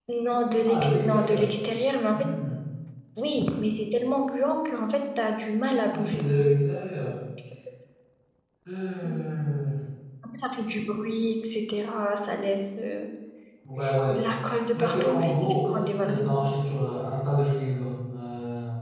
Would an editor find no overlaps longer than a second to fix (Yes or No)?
No